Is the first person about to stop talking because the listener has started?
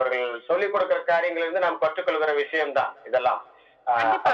Yes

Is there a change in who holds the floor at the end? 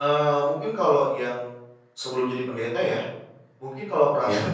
No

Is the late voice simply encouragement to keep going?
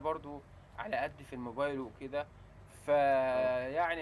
Yes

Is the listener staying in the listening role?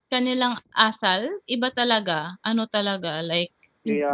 Yes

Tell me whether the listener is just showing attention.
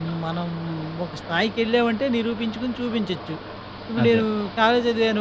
Yes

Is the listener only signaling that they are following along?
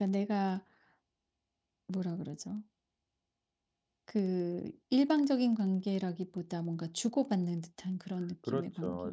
No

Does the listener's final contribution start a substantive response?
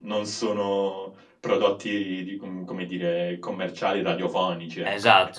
Yes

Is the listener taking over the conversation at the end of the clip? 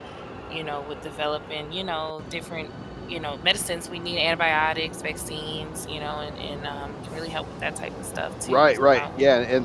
Yes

